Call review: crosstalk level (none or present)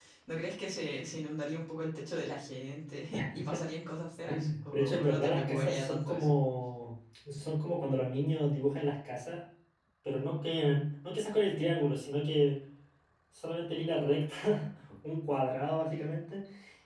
present